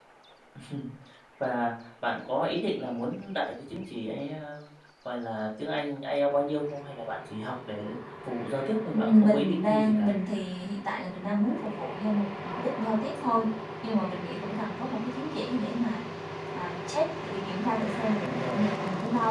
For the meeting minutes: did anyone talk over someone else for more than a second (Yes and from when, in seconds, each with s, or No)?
Yes, from 8.9 s